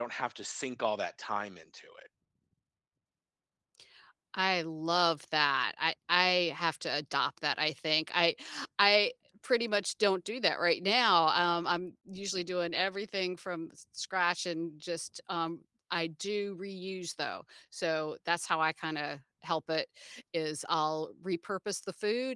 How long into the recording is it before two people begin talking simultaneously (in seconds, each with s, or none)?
none